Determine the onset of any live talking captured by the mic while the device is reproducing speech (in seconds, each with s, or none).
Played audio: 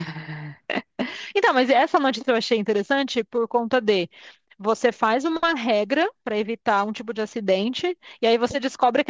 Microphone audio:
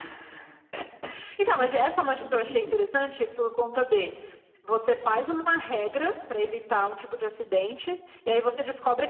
1.5 s